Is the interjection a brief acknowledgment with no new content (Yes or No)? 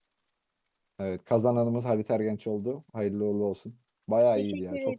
No